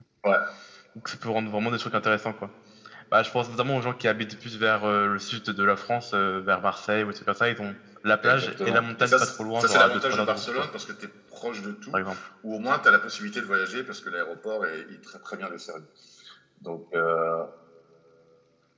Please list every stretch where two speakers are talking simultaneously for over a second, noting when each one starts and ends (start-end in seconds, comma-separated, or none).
8.2-10.5